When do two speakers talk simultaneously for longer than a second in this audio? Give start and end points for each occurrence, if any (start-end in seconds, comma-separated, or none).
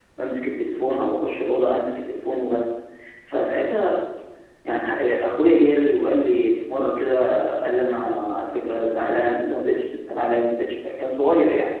none